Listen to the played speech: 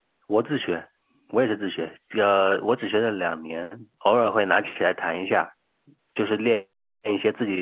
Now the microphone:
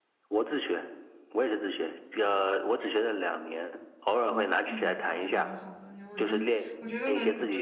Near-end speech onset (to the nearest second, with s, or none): 4 s